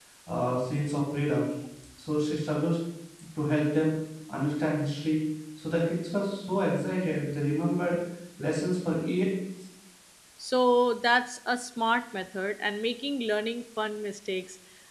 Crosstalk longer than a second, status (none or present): none